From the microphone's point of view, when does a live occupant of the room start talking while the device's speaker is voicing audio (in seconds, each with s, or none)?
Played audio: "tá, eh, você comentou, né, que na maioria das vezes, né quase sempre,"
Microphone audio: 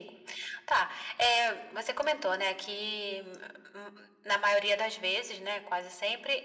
none